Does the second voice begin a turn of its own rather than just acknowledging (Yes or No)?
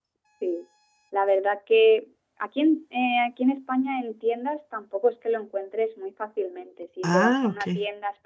No